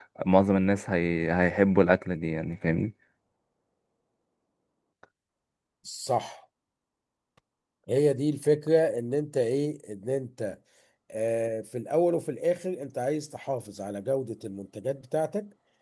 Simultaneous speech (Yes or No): No